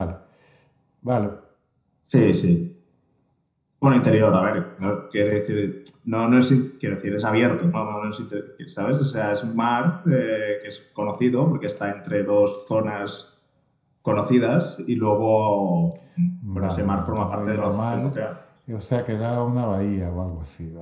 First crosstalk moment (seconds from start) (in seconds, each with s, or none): 16.6 s